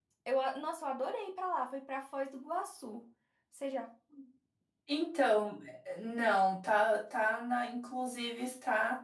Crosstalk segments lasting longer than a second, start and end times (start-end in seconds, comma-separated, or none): none